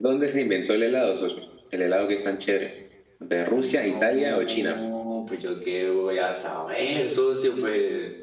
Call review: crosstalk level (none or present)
present